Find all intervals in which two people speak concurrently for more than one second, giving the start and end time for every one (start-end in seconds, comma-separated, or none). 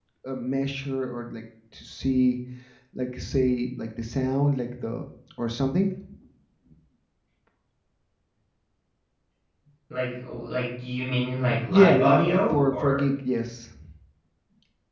11.7-13.1